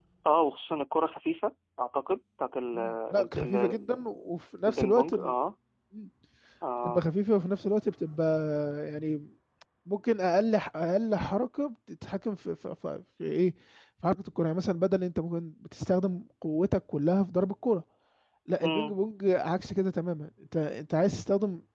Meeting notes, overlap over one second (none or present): present